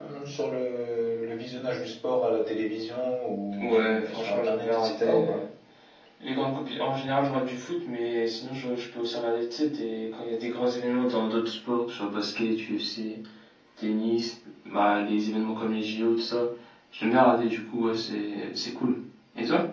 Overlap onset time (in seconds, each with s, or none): 3.6 s